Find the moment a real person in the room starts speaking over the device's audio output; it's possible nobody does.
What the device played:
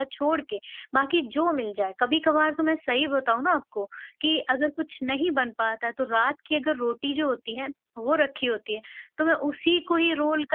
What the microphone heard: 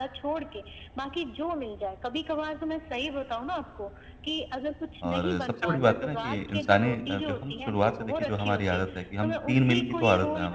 5.1 s

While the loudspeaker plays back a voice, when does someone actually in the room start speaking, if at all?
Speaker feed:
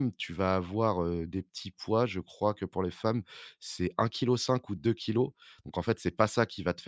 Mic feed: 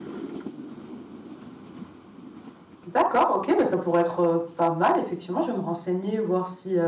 2.9 s

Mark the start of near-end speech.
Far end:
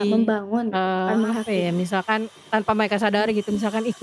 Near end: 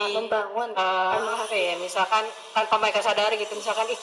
none

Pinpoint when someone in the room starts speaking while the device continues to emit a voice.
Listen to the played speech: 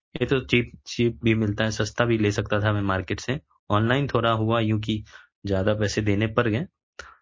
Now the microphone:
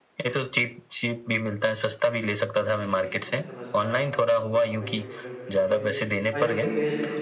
2.6 s

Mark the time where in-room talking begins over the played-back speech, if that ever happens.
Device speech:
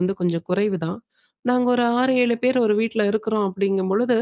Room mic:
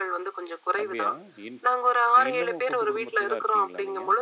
0.8 s

